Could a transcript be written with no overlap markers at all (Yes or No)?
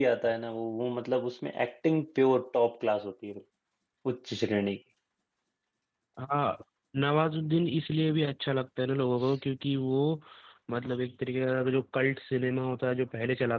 Yes